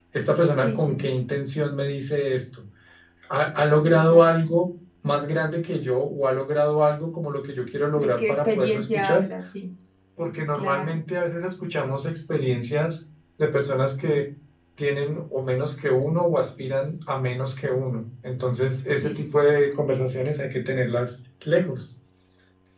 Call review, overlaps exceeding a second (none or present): present